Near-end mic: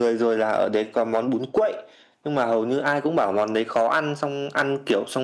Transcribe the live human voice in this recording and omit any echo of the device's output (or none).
none